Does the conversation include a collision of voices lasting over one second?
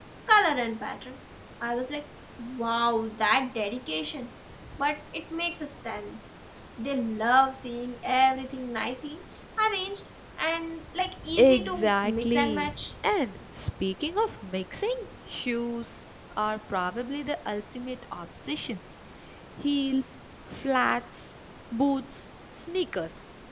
Yes, from 11.2 s

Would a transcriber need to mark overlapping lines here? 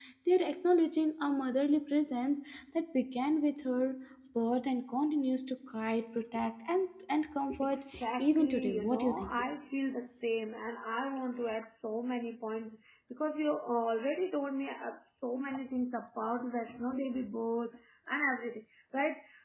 Yes, from 7.6 s

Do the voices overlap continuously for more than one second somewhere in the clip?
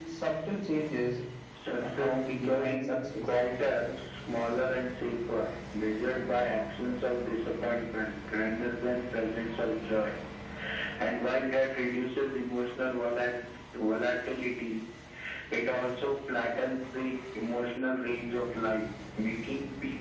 Yes, from 1.8 s

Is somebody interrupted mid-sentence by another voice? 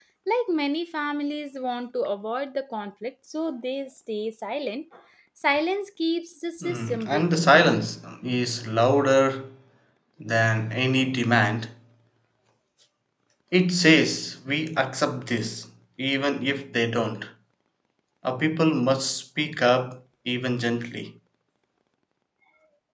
Yes, from 6.6 s

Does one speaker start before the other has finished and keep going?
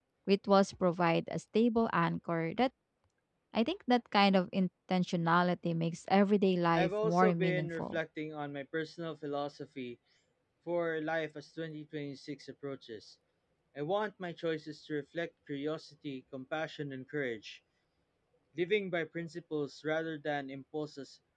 Yes, from 6.7 s

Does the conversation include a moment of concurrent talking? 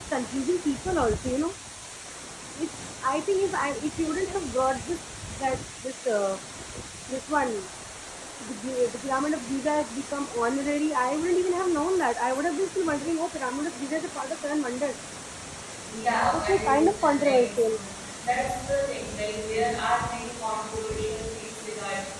Yes, from 16.3 s

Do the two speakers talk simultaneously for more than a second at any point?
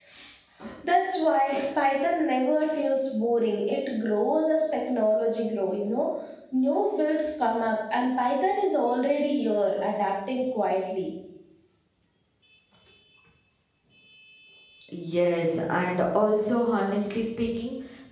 No

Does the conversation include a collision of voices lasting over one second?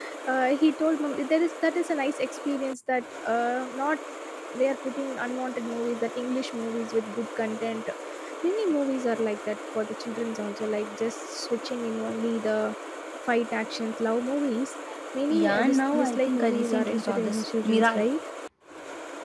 Yes, from 15.3 s

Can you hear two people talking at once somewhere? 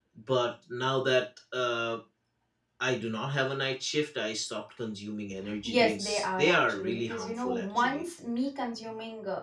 Yes, from 5.6 s

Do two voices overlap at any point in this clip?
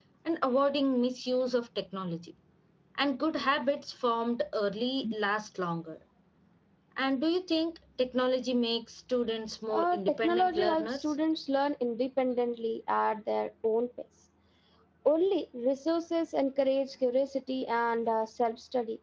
Yes, from 9.7 s

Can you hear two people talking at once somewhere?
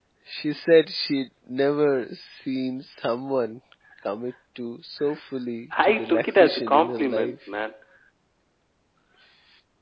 Yes, from 5.8 s

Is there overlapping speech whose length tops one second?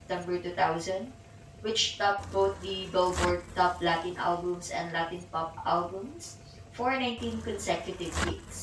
No

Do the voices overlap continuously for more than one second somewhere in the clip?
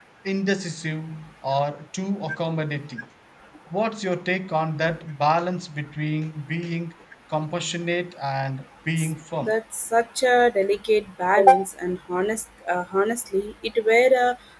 No

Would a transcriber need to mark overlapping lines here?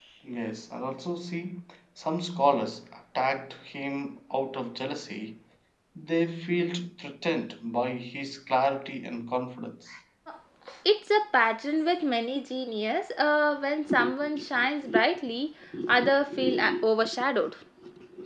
No

